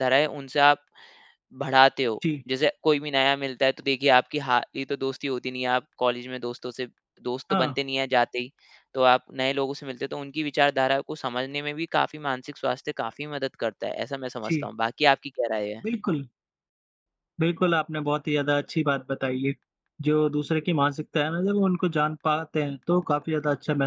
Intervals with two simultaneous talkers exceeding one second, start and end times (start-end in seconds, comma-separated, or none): none